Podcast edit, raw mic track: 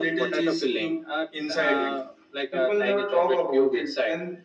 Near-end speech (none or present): none